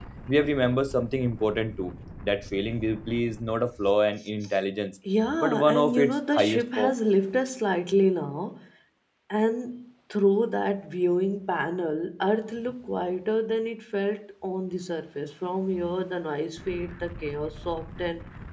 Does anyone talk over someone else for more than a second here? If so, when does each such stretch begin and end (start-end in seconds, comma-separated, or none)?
5.4-6.9